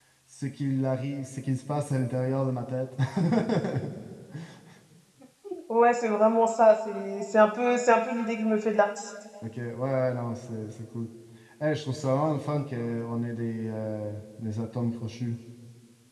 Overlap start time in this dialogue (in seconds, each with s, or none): none